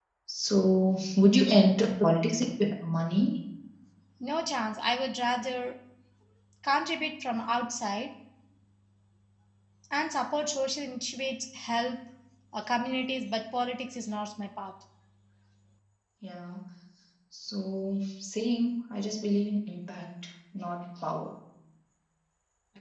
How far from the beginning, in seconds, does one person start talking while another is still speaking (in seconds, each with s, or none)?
none